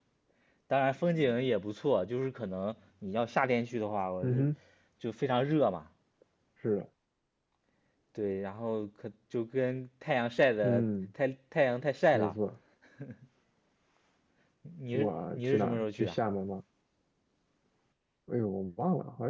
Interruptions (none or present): present